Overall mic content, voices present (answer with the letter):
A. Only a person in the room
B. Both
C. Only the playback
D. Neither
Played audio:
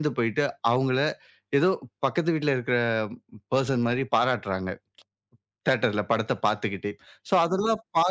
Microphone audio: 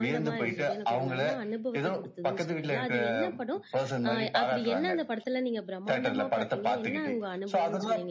B